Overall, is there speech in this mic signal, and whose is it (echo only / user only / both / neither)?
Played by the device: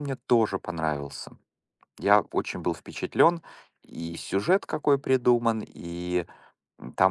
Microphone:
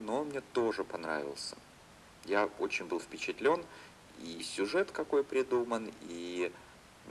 echo only